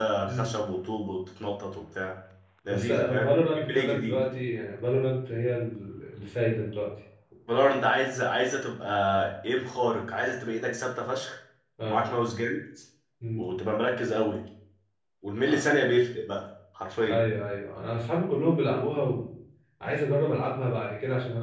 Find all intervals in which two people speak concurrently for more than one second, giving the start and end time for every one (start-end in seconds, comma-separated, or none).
2.7-4.2